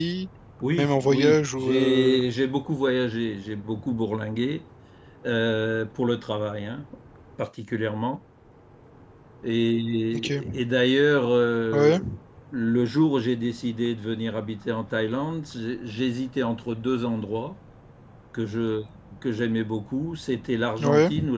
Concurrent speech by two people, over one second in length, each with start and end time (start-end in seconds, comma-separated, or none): 0.8-2.2